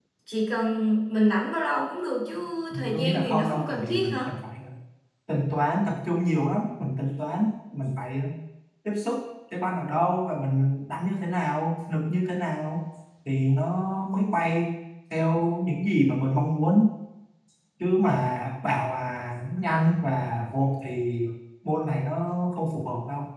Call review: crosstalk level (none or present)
present